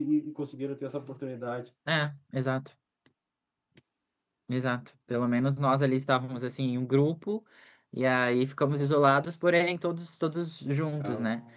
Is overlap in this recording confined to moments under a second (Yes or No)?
Yes